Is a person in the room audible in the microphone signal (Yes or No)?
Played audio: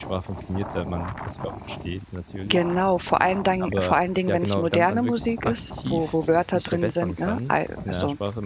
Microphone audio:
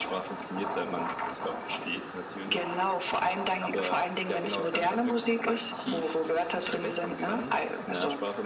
No